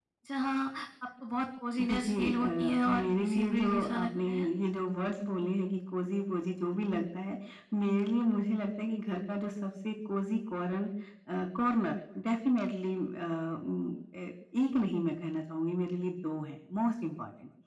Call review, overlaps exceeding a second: present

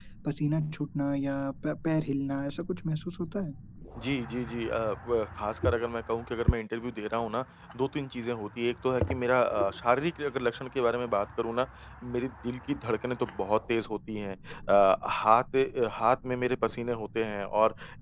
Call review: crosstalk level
none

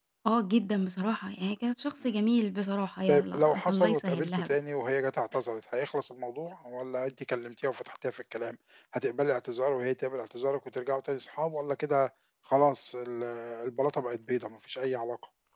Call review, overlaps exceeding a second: present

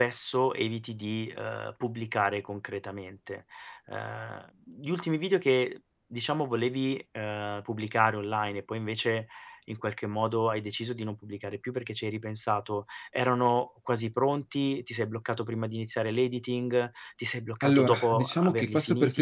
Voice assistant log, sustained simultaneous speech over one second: present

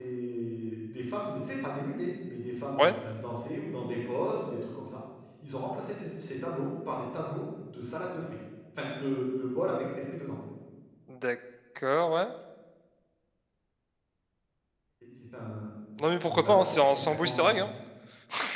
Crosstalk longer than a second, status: present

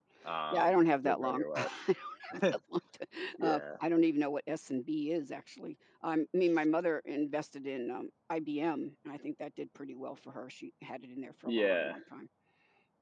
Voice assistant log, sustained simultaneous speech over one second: present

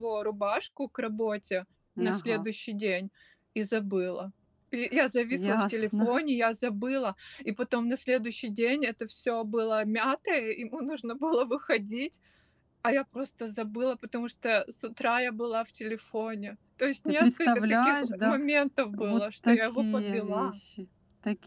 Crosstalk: present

